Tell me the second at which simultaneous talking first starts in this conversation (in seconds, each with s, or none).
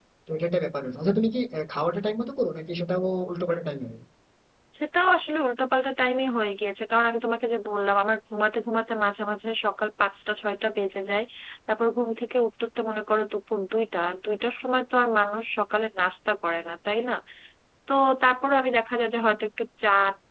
none